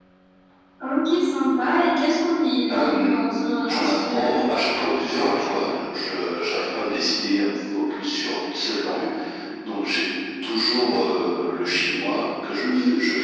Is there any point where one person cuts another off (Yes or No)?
Yes